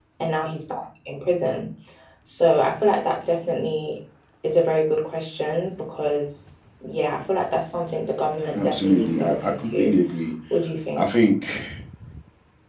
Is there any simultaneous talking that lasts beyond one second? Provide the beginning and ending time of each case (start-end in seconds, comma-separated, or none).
8.6-9.9